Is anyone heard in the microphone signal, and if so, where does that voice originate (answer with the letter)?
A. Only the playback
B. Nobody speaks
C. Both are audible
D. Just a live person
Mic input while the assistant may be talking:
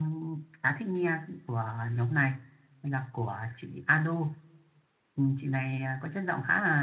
A